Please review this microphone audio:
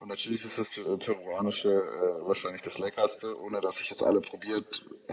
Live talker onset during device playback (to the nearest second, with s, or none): none